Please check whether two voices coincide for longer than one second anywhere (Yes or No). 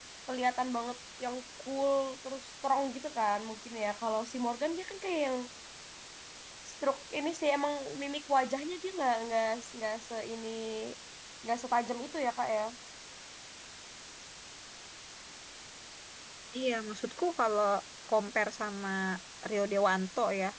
No